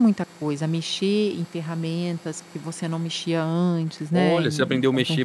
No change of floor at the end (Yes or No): No